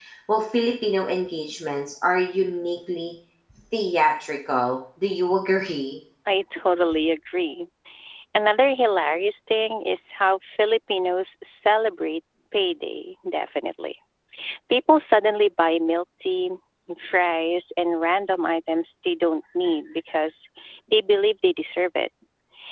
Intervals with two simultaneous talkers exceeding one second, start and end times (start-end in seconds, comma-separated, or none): none